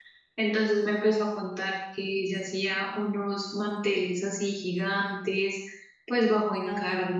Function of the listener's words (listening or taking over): listening